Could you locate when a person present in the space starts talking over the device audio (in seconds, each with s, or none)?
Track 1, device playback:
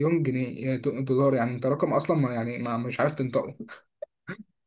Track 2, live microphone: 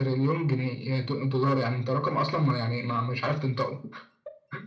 none